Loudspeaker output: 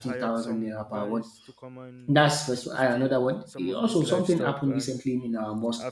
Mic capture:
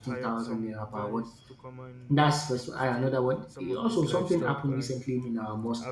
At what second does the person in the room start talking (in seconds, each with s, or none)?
none